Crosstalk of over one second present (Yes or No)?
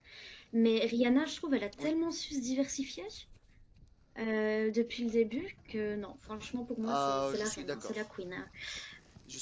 Yes